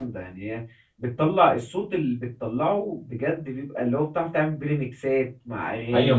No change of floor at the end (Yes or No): No